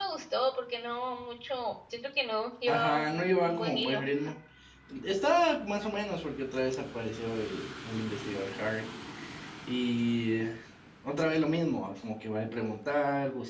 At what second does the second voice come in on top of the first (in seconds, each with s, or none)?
2.7 s